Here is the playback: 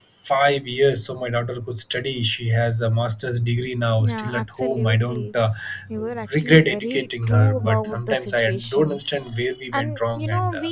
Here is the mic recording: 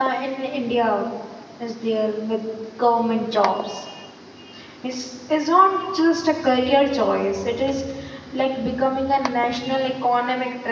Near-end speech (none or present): present